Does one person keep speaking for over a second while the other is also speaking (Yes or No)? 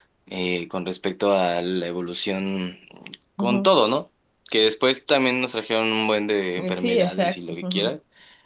Yes